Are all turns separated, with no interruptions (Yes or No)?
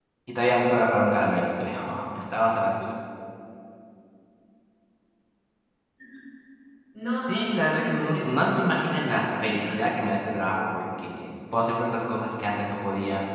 No